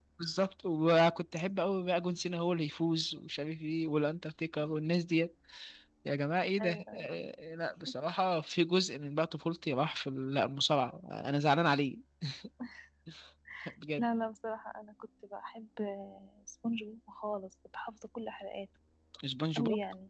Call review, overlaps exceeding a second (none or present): none